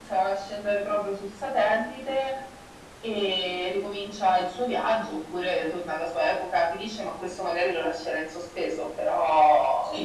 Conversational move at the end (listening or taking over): taking over